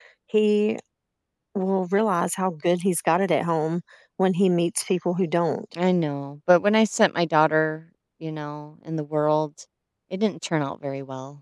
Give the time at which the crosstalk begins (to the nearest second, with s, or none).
none